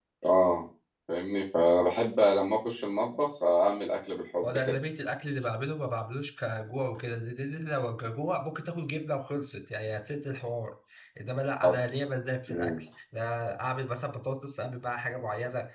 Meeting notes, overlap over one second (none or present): none